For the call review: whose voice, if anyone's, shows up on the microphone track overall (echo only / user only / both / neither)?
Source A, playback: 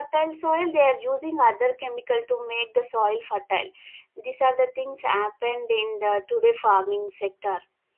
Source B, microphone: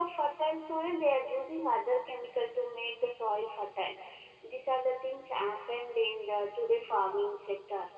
echo only